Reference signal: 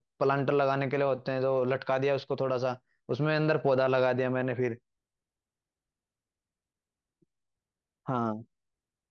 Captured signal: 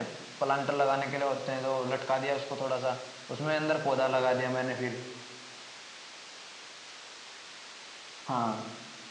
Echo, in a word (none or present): present